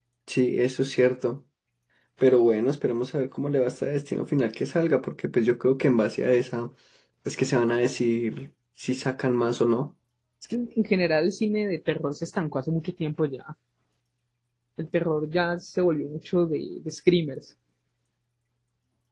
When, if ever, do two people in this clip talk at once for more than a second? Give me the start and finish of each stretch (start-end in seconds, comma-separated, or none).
none